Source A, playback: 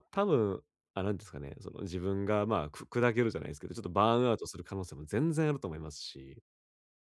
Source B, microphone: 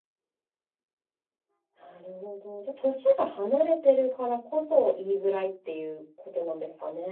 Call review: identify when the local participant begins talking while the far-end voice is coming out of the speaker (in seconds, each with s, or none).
1.8 s